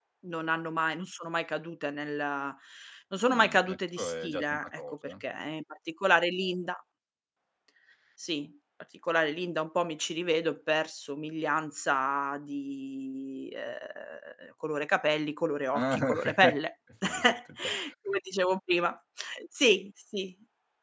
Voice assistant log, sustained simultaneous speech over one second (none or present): present